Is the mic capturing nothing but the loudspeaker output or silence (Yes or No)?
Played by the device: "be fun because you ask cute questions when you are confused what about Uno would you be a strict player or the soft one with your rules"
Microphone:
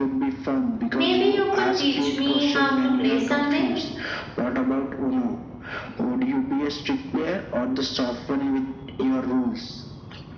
No